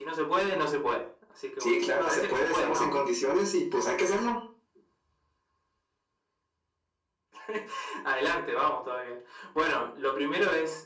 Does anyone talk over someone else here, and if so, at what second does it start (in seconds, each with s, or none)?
1.6 s